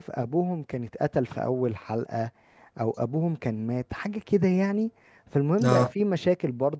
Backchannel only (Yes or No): Yes